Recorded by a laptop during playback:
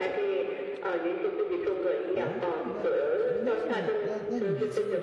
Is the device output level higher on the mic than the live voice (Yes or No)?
Yes